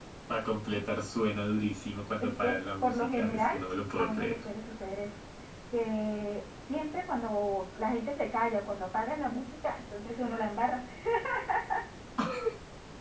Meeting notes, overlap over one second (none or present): present